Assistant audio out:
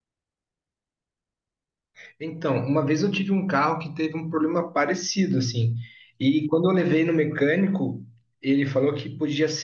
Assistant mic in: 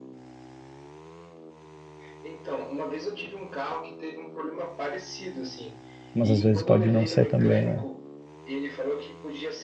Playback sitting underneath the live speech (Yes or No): Yes